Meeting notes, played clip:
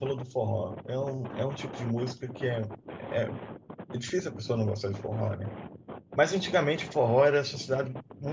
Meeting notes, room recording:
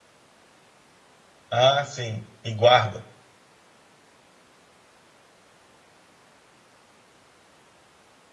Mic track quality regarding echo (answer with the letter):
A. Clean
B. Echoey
A